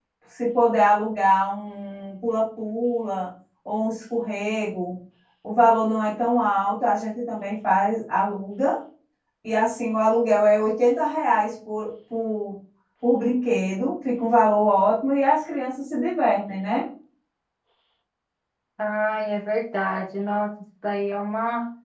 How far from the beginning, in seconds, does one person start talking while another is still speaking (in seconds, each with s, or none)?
none